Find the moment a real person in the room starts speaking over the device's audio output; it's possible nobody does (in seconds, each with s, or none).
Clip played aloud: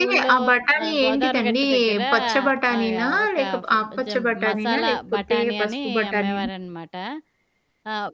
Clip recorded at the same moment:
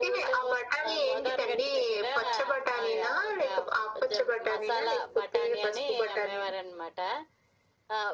none